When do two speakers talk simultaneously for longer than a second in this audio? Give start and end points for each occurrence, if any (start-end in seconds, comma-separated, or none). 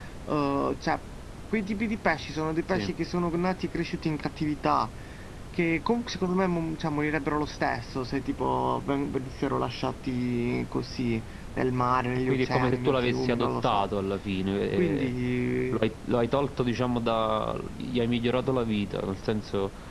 12.3-13.8